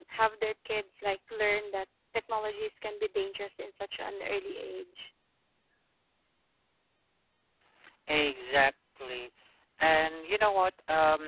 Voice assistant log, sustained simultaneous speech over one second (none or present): none